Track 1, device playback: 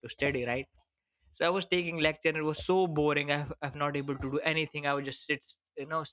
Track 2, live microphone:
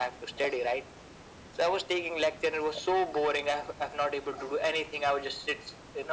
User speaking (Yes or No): No